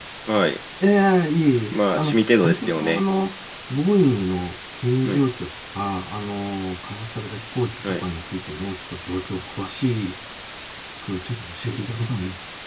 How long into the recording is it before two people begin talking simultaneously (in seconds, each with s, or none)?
1.7 s